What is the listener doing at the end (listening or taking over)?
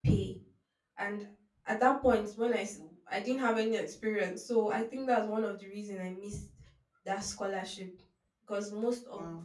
listening